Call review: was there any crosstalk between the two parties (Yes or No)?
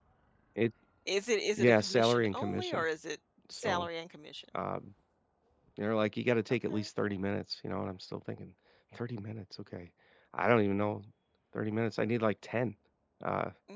Yes